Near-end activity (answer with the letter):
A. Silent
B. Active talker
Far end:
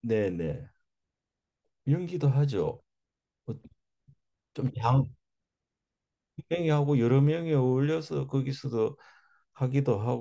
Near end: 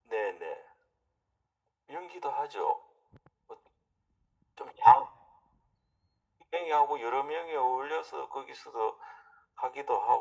A